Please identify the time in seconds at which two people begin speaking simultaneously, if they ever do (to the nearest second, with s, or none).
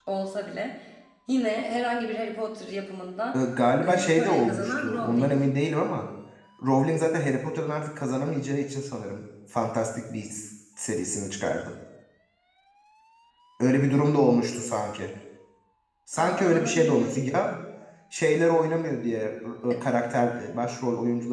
4 s